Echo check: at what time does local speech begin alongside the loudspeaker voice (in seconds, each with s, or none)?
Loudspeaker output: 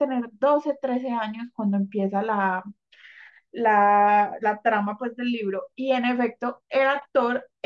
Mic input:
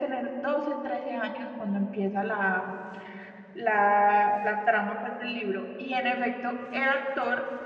none